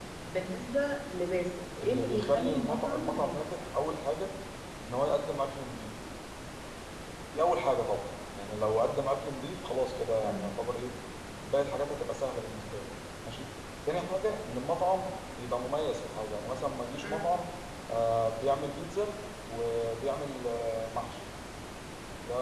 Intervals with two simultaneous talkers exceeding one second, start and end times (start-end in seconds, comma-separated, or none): 1.8-3.4